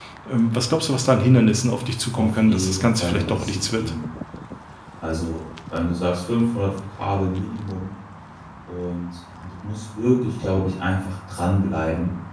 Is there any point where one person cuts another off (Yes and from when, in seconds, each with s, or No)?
Yes, from 2.2 s